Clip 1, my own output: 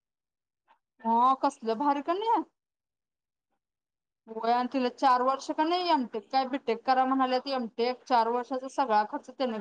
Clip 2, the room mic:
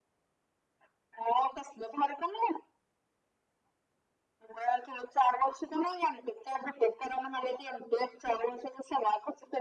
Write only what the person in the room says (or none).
none